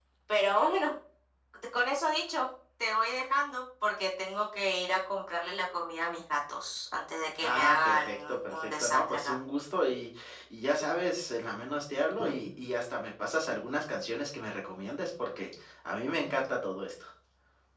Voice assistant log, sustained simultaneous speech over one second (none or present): present